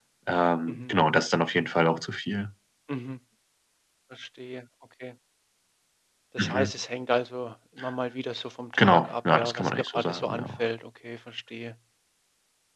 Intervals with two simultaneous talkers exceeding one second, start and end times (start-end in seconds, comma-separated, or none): 8.8-10.5